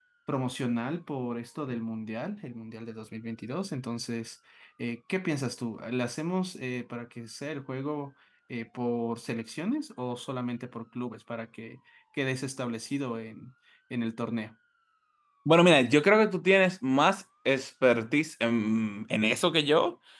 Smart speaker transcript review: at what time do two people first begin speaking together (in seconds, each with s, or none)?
none